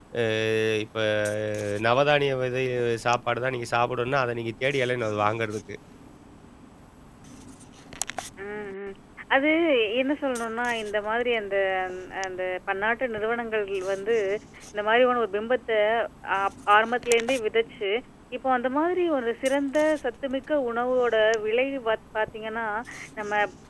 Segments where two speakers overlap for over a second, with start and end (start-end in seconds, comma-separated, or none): none